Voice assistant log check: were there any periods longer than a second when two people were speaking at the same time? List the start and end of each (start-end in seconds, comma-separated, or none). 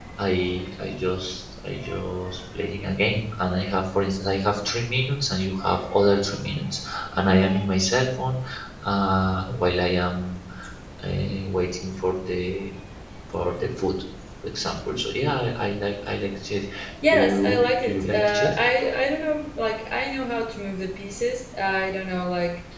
17.1-18.6